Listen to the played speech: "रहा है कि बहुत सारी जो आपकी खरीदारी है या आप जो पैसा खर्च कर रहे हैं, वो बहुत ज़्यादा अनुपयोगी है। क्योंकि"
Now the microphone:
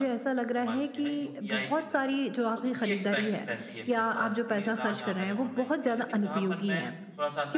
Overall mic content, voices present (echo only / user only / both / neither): both